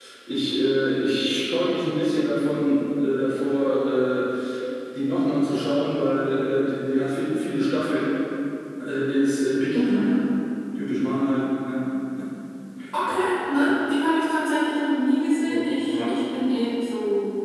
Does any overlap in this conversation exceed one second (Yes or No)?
No